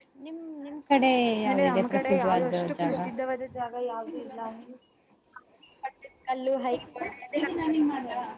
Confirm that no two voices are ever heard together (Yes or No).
No